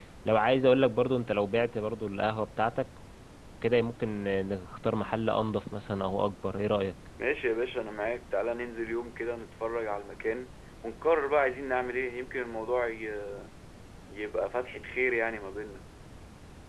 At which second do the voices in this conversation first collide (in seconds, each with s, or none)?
none